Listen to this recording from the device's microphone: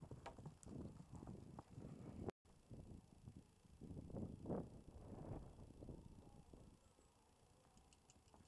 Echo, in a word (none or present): none